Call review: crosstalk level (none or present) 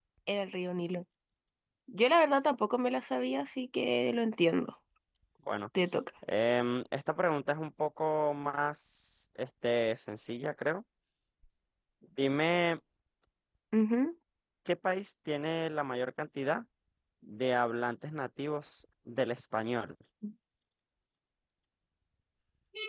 none